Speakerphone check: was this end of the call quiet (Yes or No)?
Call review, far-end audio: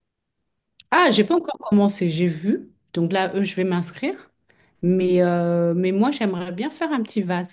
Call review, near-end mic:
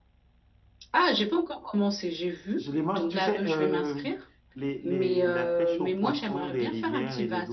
No